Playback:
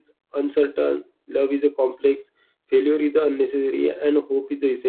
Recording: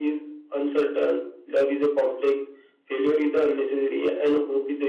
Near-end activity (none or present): none